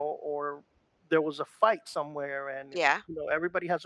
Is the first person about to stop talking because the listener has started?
No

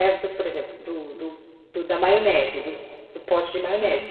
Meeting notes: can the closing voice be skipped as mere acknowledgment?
No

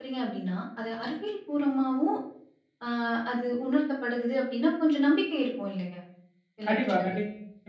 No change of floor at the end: No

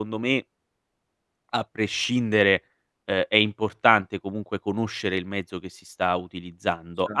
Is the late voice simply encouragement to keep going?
Yes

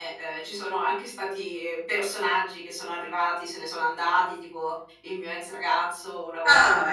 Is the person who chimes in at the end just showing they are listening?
No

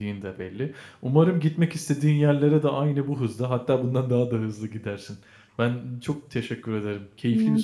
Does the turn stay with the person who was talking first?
No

